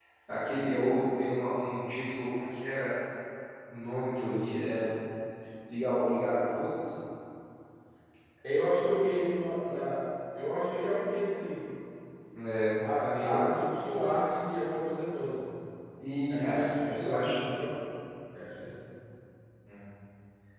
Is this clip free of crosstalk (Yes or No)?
No